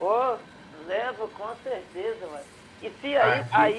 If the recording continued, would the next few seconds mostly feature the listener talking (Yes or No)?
No